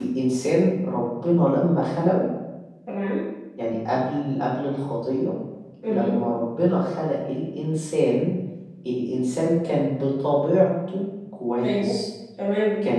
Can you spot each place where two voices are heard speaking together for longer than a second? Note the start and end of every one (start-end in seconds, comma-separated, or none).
none